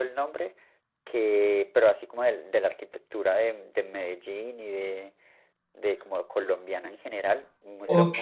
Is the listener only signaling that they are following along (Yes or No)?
No